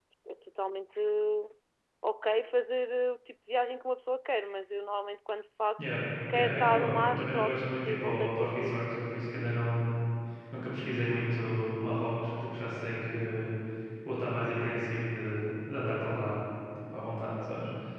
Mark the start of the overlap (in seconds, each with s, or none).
6.3 s